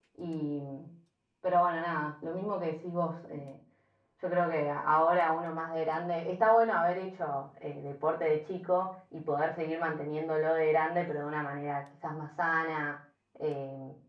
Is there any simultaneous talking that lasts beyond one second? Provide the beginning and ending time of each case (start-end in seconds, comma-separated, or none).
none